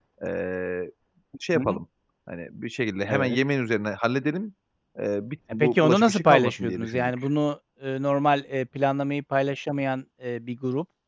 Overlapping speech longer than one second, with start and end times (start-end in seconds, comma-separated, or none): 5.5-7.3